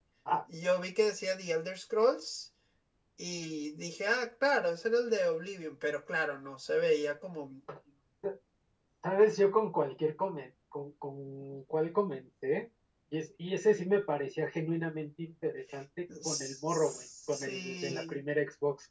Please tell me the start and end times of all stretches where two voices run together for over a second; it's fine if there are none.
16.2-18.2

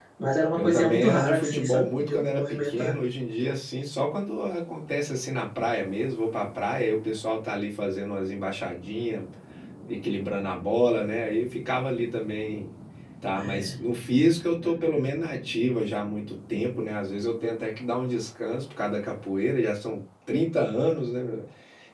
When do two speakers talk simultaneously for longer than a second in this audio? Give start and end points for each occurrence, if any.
0.6-3.0

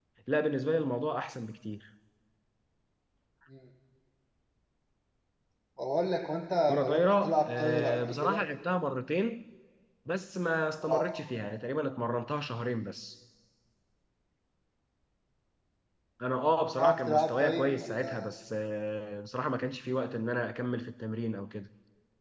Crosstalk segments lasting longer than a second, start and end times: 6.7-8.4, 16.8-18.3

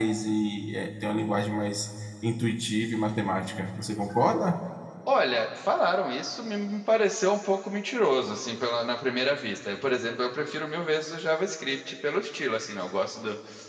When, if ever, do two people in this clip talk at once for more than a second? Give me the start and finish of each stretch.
none

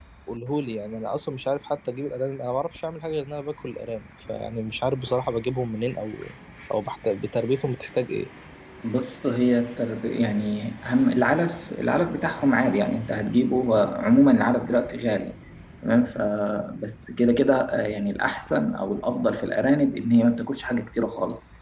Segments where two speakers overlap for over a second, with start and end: none

